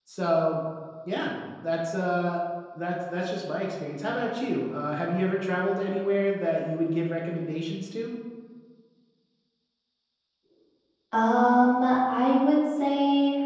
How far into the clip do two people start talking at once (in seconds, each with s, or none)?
none